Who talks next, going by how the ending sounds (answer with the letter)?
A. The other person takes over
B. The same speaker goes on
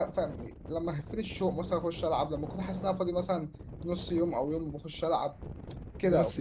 B